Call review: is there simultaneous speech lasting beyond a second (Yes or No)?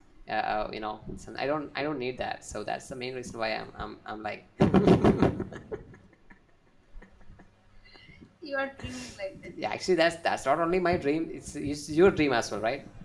No